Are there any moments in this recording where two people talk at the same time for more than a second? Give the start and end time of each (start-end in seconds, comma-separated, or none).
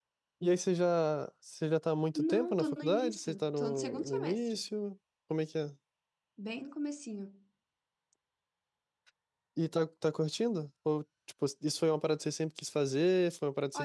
2.1-4.6